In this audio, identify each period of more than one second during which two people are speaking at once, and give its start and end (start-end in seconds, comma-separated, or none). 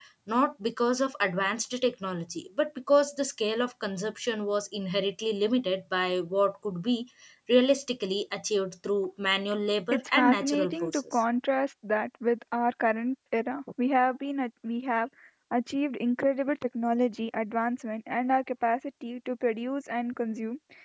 9.9-11.2